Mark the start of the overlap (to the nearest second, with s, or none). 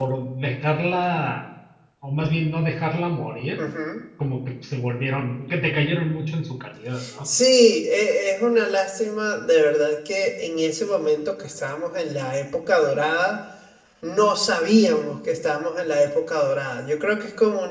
none